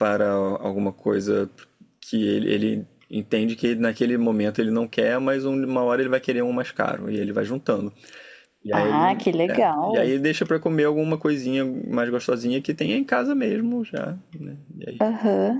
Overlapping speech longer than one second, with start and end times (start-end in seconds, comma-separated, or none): 8.7-10.1